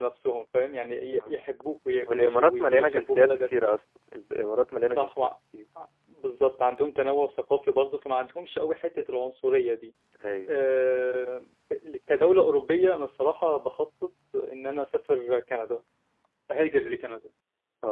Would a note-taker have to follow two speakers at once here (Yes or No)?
Yes